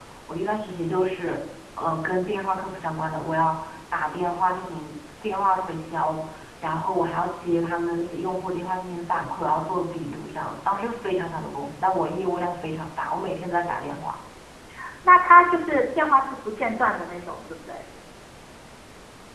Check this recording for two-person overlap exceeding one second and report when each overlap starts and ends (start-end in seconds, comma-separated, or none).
none